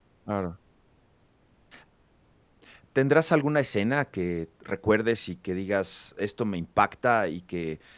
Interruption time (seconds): none

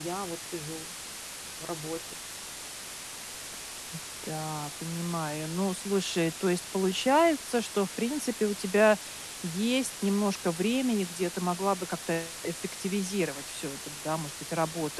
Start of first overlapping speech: none

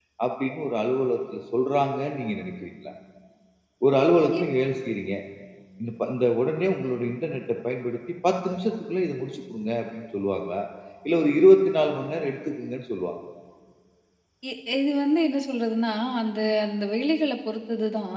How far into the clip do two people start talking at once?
none

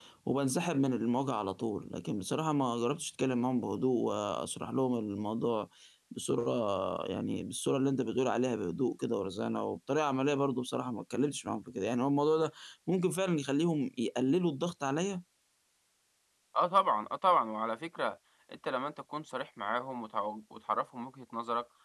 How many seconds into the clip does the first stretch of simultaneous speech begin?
none

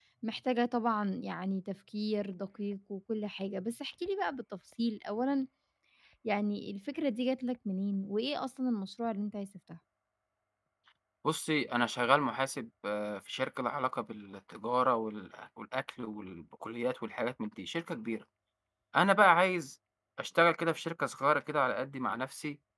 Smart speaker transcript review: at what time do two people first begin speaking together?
none

